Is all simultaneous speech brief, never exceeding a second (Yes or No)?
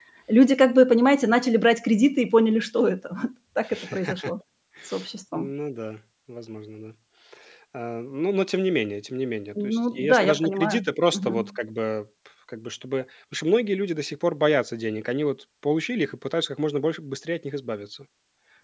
No